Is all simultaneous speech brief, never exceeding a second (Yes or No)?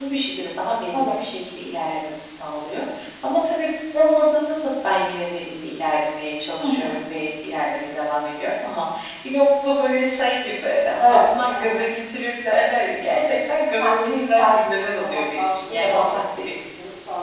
No